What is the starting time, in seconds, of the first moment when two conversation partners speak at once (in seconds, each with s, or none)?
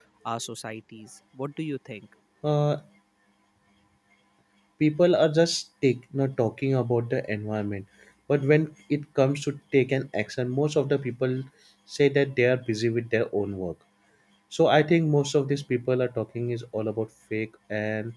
none